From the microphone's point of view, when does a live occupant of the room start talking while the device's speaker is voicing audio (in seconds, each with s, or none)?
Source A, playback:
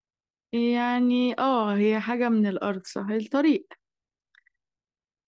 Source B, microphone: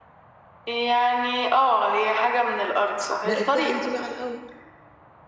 3.2 s